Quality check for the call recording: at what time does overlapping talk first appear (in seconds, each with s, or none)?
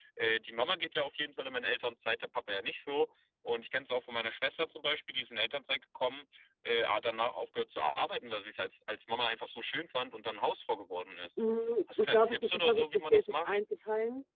12.0 s